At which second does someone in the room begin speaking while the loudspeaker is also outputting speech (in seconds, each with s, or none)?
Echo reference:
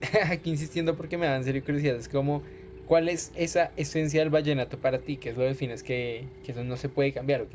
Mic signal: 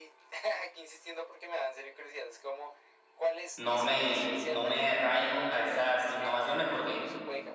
3.6 s